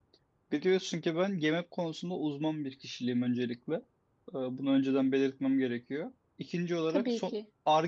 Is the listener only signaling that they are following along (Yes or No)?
Yes